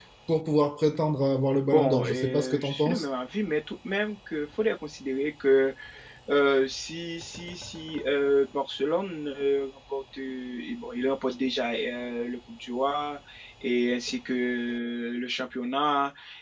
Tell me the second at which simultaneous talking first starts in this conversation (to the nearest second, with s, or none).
2 s